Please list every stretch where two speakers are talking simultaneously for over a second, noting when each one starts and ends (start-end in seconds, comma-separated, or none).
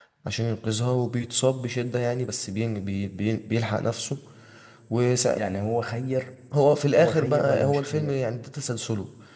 7.0-8.2